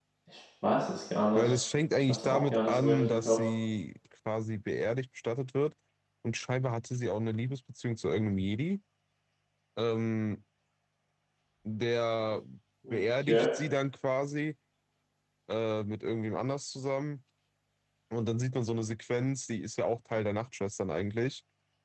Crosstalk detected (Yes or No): Yes